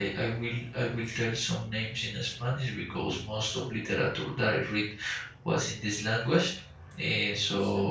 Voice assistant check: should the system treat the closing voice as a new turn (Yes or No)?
No